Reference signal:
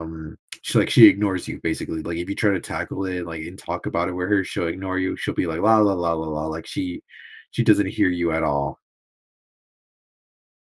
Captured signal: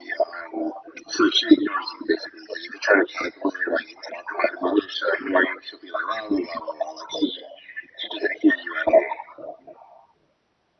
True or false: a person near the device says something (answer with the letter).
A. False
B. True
A